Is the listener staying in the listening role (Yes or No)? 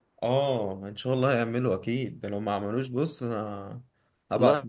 No